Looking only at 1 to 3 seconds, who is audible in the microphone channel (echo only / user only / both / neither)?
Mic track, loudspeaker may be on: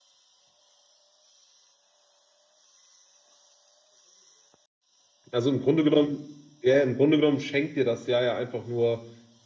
neither